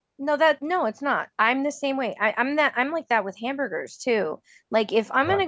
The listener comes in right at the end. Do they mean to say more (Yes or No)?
No